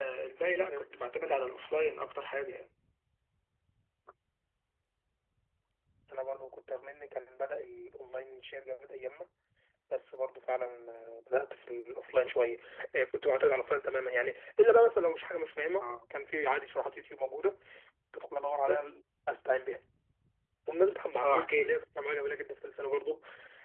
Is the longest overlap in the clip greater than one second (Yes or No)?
No